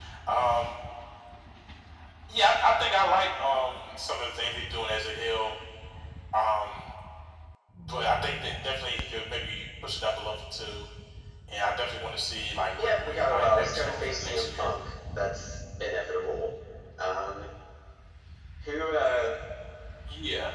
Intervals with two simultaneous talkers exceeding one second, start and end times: 12.8-14.7

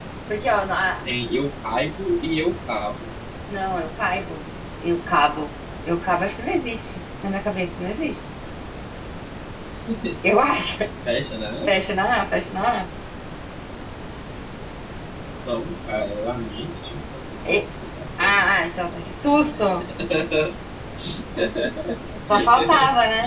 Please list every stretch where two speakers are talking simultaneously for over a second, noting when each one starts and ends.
none

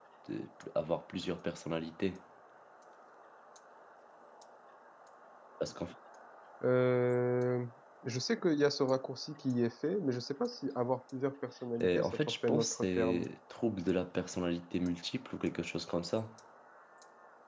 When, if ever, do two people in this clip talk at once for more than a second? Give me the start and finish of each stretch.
11.8-13.3

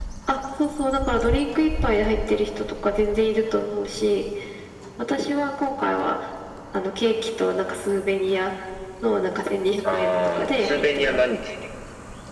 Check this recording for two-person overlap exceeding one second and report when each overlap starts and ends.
9.9-11.2

